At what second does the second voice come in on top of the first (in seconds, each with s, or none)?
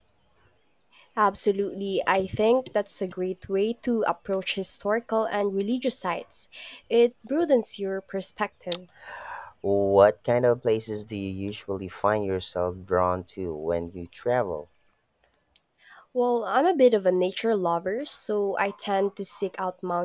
none